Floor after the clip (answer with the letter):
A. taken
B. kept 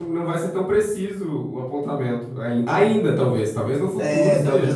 A